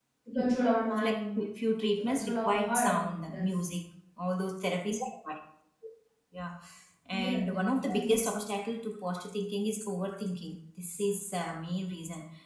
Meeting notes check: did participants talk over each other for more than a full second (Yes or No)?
Yes